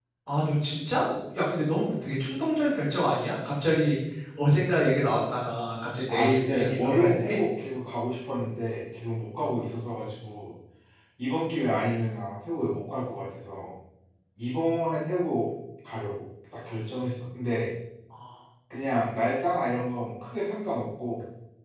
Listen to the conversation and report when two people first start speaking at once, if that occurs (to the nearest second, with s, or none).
6 s